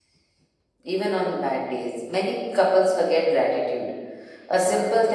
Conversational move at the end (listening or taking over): listening